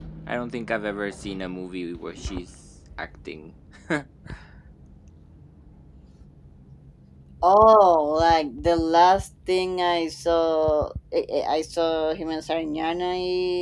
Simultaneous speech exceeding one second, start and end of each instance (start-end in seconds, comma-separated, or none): none